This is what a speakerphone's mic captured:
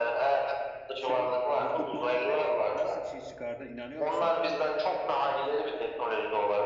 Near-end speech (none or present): present